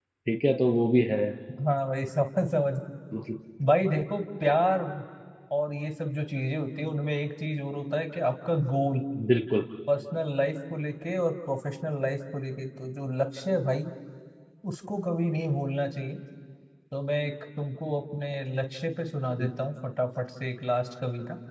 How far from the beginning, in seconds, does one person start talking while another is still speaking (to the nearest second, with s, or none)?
none